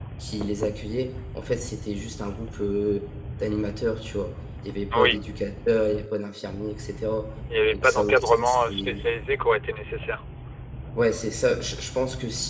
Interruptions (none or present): present